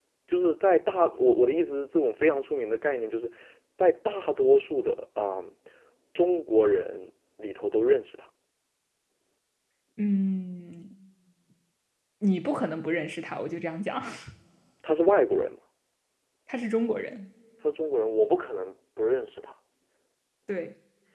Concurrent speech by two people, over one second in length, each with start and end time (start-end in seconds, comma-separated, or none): none